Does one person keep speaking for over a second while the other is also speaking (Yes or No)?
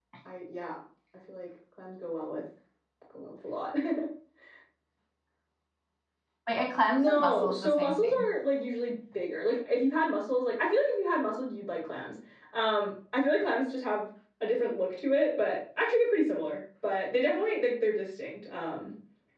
Yes